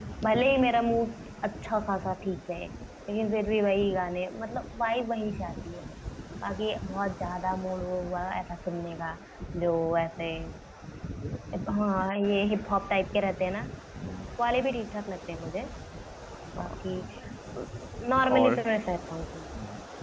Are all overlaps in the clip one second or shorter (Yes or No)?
Yes